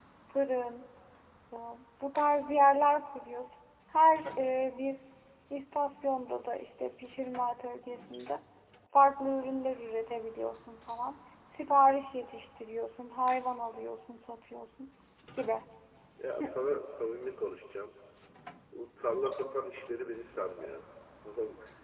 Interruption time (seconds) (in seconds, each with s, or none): none